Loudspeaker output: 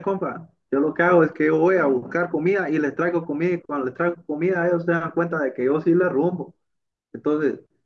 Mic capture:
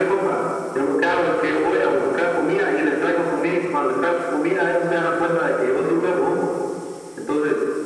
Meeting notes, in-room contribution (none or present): none